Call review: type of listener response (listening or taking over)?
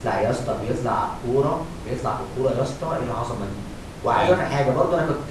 listening